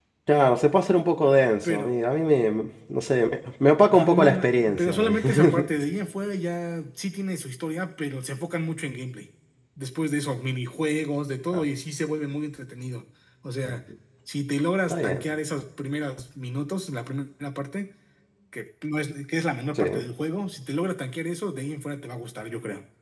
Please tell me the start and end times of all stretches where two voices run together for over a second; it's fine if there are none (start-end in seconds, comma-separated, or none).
3.9-5.7